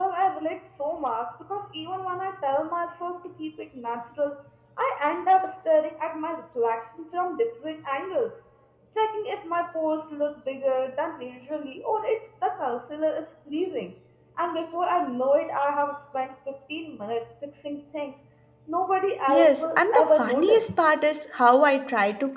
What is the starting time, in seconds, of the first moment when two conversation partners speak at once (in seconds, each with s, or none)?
19.3 s